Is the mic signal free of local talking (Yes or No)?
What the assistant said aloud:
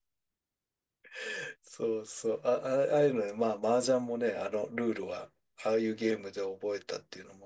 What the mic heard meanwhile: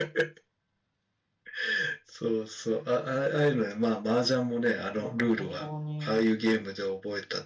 No